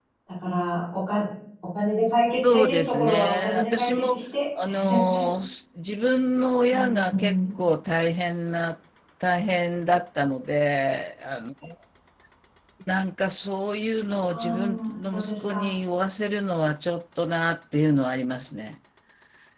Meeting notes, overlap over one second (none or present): present